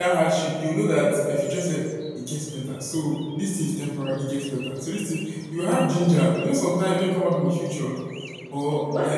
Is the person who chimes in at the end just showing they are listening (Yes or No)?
Yes